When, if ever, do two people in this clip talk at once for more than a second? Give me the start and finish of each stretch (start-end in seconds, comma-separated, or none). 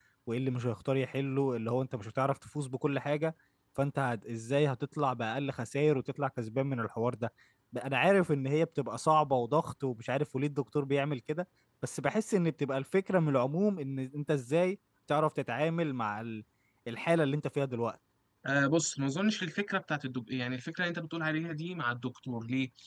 none